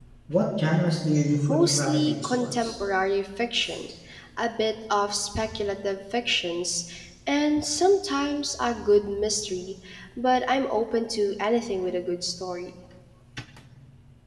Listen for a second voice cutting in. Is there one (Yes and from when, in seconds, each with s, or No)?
Yes, from 1.5 s